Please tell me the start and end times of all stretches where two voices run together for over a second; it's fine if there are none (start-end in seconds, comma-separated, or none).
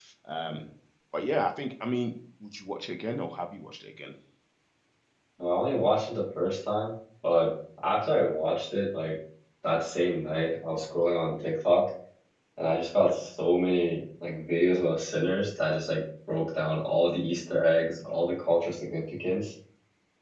none